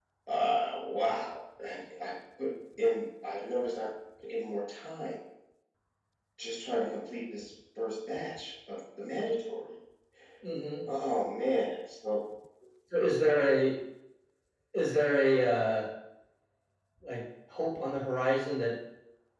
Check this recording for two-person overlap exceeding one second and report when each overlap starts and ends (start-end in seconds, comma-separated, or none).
none